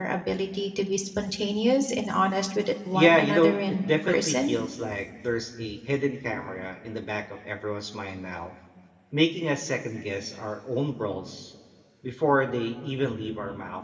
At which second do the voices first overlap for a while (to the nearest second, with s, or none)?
3 s